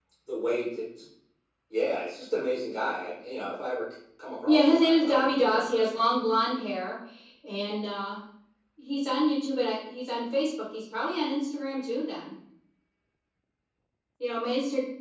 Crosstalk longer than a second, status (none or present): present